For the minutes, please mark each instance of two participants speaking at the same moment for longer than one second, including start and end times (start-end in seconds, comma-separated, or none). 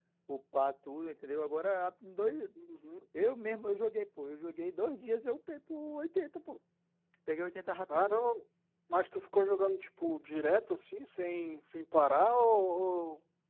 none